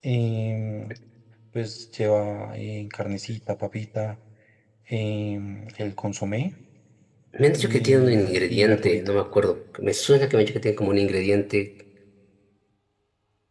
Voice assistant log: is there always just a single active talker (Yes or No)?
No